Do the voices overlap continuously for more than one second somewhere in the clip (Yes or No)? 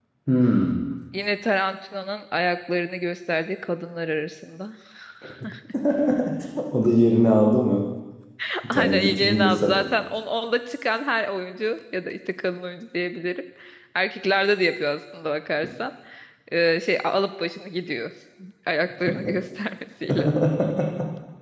Yes